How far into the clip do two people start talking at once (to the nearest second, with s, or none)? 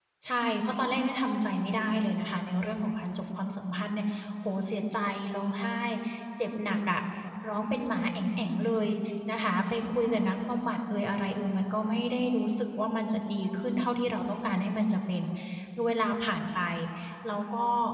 none